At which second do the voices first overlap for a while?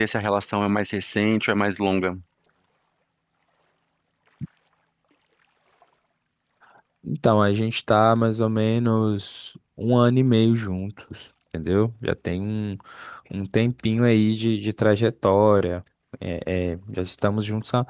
none

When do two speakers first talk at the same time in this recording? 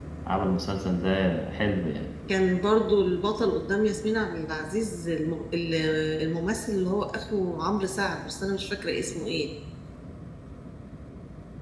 none

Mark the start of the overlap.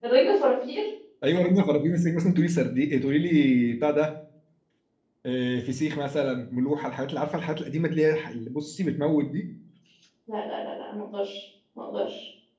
none

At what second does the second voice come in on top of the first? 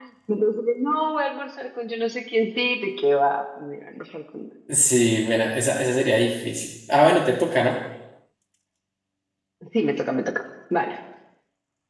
none

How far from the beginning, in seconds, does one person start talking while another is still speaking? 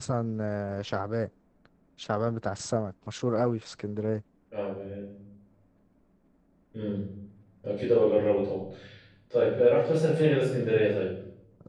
none

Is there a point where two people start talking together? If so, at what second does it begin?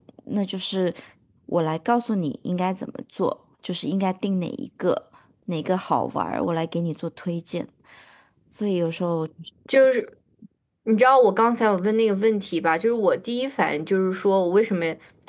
none

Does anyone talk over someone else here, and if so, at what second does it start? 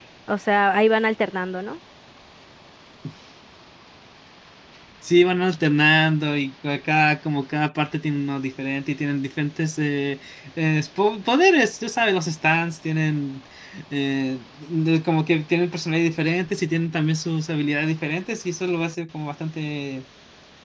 none

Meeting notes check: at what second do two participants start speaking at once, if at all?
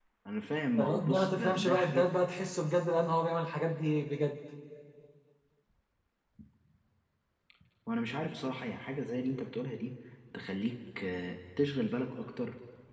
1 s

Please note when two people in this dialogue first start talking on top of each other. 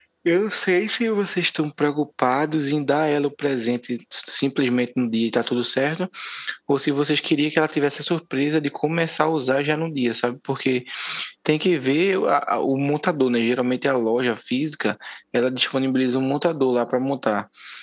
none

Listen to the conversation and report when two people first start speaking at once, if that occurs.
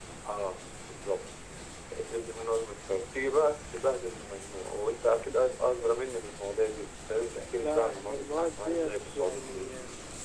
8 s

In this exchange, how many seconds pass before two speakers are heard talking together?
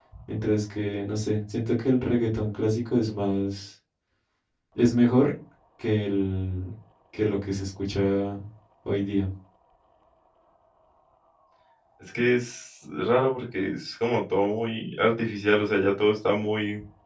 none

